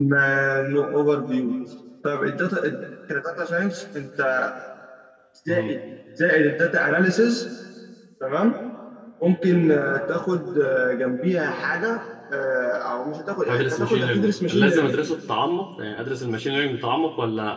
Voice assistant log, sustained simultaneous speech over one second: present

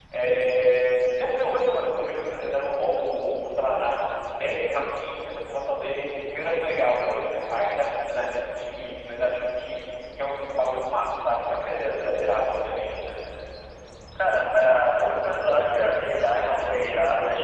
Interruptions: none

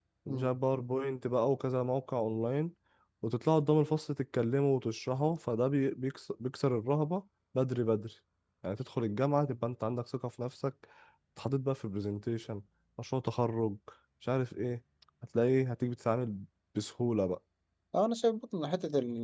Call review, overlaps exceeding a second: none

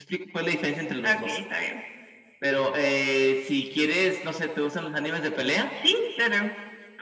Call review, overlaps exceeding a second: none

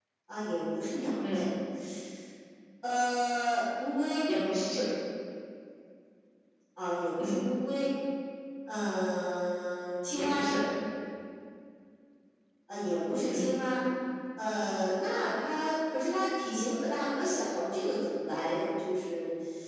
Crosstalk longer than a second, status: none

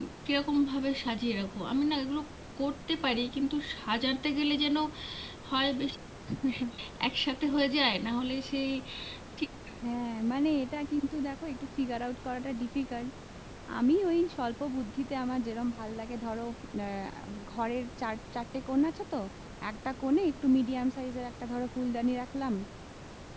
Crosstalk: none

